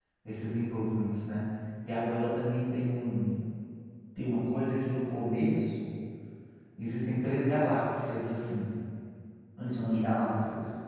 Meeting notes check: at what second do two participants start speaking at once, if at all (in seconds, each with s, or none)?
none